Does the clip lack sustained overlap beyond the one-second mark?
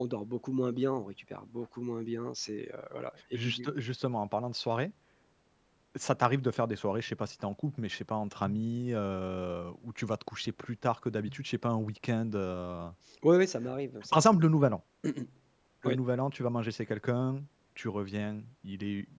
Yes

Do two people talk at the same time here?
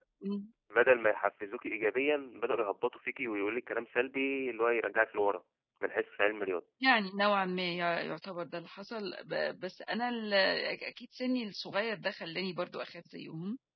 No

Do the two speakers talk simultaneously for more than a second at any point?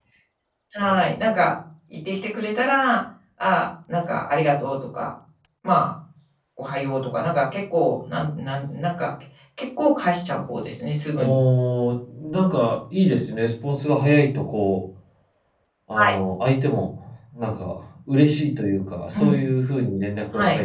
No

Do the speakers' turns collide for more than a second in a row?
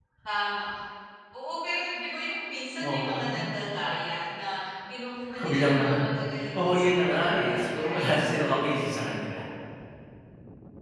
Yes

